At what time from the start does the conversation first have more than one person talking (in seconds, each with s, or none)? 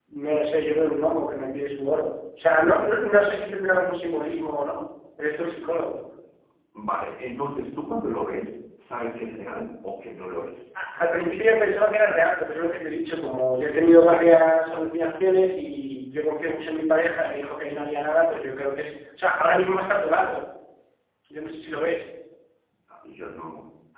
none